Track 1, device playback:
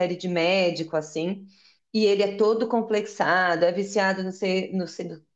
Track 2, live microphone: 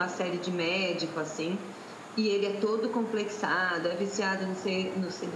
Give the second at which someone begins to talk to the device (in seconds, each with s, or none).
none